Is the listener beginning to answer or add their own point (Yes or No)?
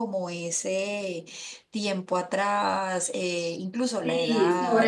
Yes